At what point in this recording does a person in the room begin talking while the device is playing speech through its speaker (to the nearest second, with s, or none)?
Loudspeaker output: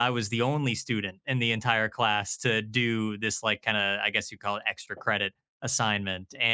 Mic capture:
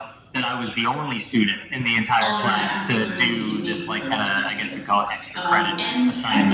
2 s